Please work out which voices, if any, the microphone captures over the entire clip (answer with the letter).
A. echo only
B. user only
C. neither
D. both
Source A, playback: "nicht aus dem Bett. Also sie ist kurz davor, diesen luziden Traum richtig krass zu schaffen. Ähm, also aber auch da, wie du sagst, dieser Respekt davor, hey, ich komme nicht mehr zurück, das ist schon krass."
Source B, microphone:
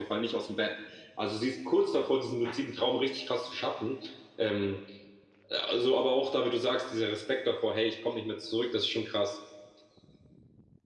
A